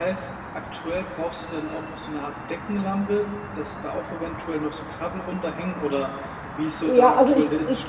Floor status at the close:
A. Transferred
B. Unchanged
A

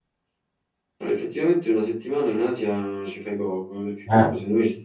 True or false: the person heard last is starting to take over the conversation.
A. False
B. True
A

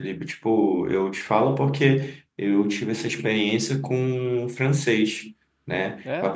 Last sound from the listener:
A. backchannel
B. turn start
A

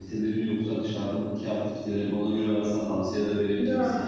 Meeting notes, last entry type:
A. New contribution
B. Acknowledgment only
A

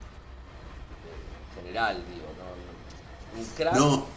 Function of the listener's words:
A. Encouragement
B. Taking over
A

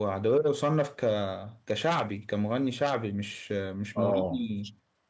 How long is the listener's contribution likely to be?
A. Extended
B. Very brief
B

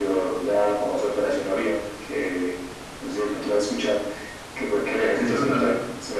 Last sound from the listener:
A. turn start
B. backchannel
B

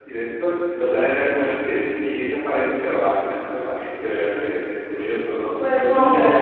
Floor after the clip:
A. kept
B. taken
B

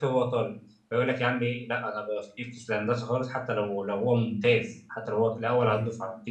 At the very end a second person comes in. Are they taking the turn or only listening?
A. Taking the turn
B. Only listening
B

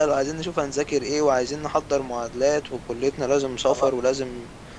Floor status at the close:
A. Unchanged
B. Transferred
A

